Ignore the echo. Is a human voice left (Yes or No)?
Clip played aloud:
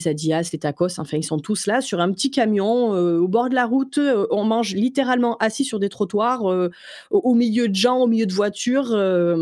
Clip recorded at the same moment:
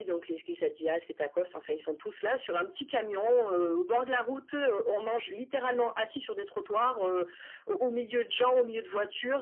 No